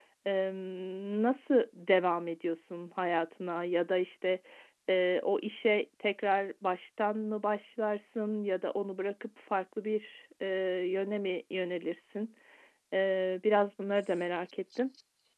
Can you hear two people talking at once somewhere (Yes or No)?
No